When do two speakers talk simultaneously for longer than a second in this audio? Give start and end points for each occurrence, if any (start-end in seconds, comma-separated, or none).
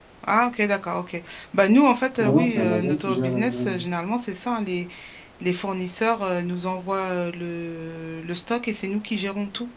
2.2-3.8